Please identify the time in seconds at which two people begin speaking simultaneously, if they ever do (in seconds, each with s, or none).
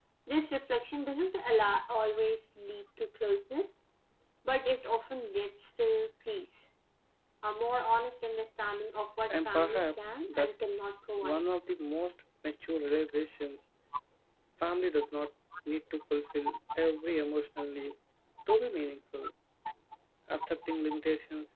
9.3 s